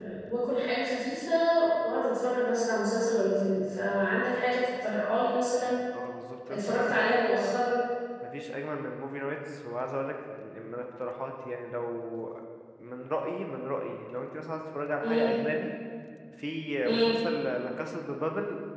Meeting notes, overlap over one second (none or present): none